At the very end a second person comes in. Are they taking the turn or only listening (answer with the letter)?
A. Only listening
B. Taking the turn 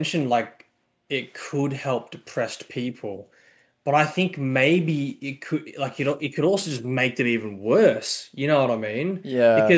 A